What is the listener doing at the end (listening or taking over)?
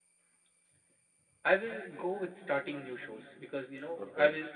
listening